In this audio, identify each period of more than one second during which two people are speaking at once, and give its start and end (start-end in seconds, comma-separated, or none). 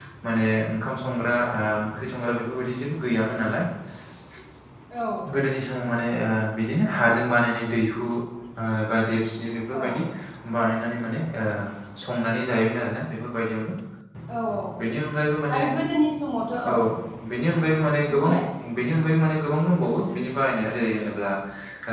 none